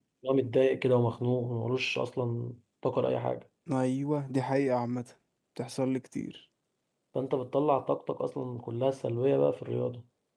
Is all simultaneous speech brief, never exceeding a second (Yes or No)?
Yes